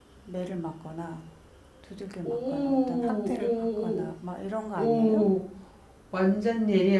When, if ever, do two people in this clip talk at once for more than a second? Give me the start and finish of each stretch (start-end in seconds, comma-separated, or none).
2.2-4.1